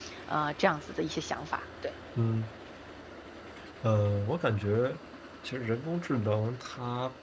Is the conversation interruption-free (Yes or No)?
Yes